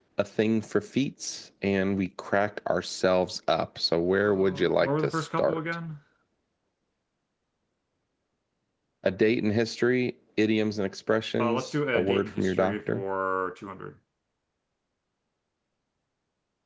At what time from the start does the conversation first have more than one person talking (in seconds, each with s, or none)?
4.2 s